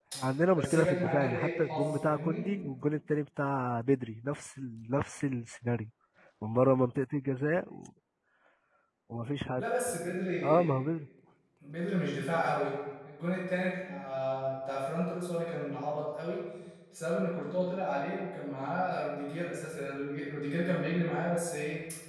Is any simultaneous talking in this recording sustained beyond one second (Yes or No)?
Yes